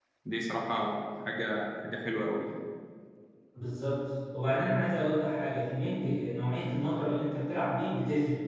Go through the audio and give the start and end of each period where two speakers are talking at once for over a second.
none

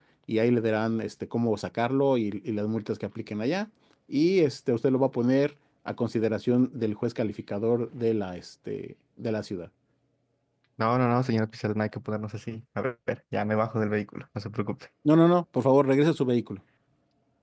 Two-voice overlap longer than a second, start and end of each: none

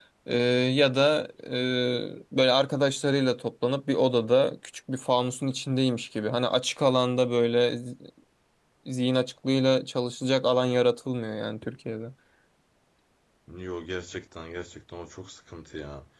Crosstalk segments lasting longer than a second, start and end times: none

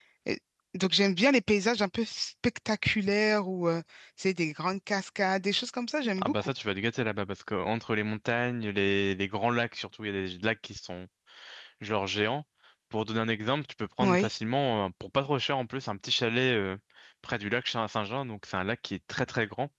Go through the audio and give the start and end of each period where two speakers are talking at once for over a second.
none

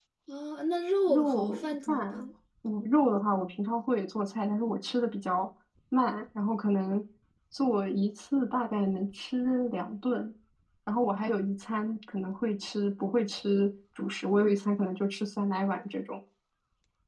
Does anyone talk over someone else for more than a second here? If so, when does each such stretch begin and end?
1.1-2.3

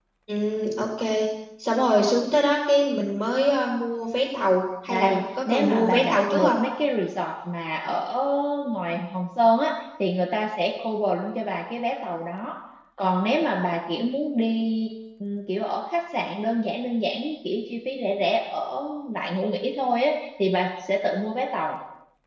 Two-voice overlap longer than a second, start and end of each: 4.9-6.6

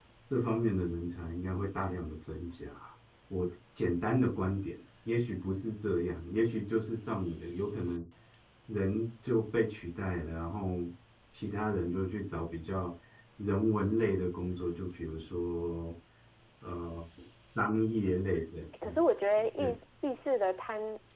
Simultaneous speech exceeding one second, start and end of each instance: none

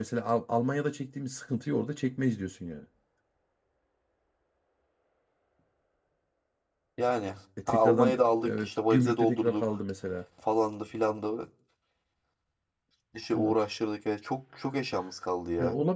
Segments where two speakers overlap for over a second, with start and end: 7.7-9.8

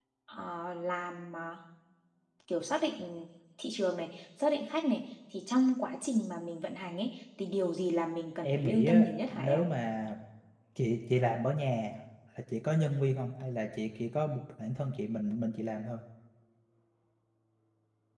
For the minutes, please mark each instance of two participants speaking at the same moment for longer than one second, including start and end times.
8.4-9.6

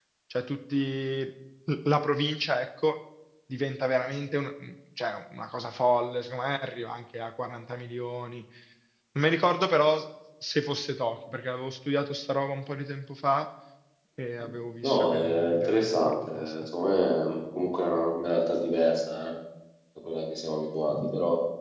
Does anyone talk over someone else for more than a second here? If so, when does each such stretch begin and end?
14.8-16.5

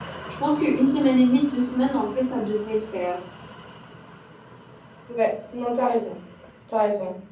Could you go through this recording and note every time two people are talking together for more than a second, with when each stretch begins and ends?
none

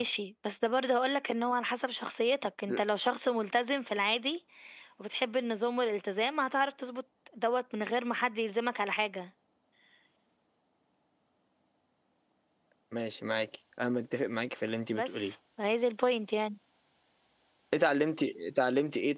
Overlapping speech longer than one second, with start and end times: none

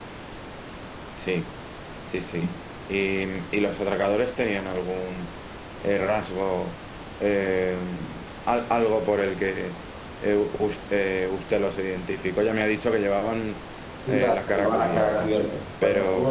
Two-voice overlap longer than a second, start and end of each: 14.1-15.3

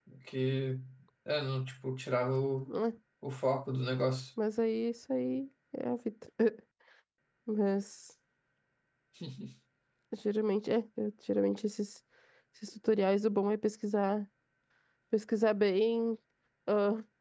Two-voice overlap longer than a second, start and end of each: none

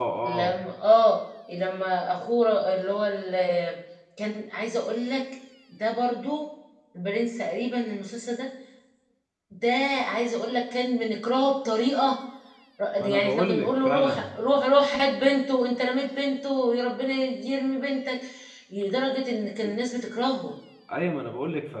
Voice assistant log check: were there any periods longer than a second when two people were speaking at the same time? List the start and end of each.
13.0-14.2

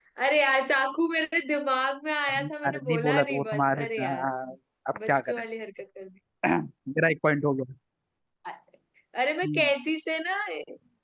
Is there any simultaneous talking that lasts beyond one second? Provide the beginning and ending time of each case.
2.3-4.3

